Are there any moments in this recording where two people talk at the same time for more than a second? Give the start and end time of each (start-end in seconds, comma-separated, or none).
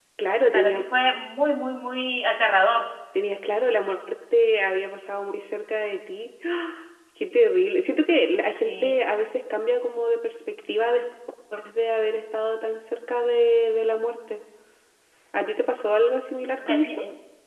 none